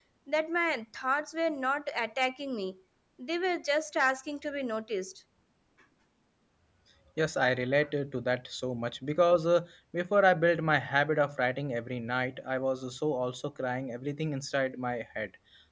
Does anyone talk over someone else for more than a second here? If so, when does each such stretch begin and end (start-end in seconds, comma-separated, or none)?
none